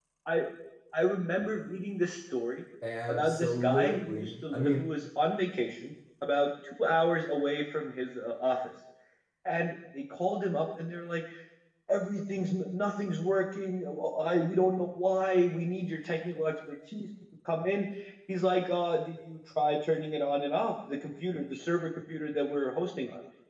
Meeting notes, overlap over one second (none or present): present